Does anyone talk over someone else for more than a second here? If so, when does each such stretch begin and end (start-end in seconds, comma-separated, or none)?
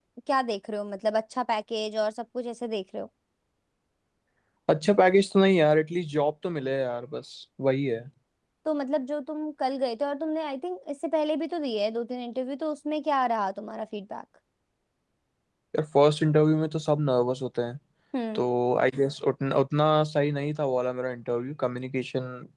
none